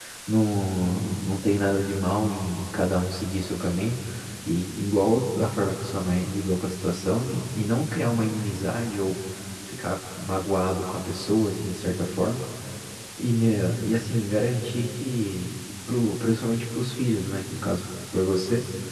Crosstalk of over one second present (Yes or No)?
No